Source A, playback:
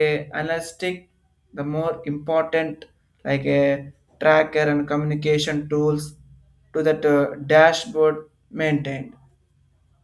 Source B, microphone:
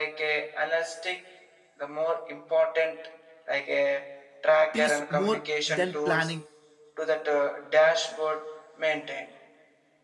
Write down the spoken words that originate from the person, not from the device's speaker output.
teaches more than planning

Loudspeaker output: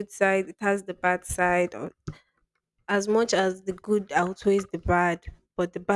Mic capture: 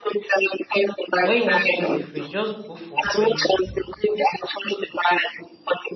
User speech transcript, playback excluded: When you want to choose a friend, just go for friends

